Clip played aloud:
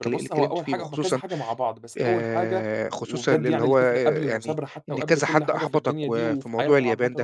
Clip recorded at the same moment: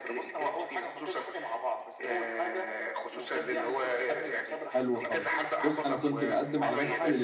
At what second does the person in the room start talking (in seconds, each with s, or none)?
4.6 s